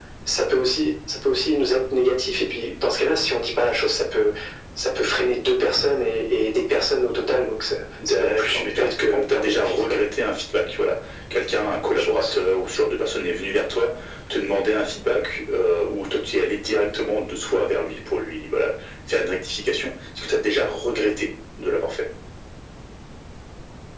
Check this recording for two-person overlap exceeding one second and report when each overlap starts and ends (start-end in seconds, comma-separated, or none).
8.2-10.0